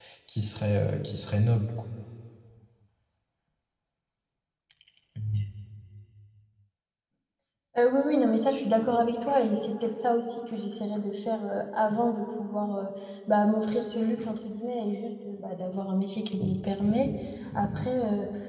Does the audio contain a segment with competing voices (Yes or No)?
No